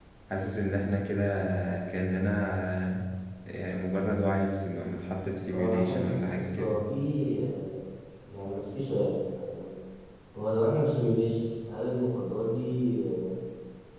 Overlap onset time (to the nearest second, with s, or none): 5 s